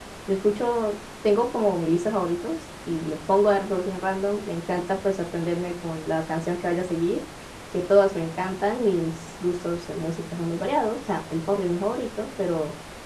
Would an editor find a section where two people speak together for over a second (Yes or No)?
No